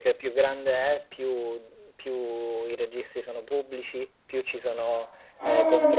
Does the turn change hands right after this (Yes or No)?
No